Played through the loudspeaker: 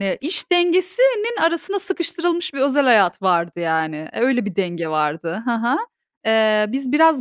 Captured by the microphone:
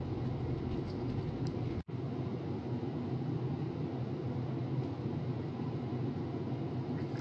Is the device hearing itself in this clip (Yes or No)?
No